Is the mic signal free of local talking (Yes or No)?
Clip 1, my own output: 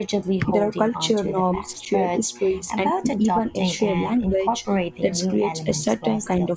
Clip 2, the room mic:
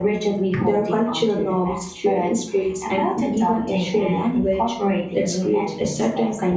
Yes